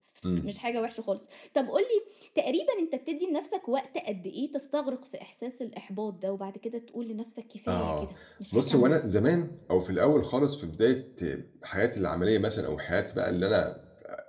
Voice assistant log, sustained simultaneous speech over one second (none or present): none